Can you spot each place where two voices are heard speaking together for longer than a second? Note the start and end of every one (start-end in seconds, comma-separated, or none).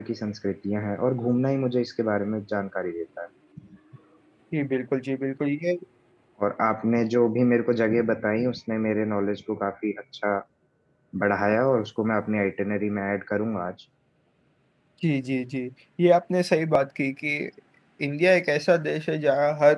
none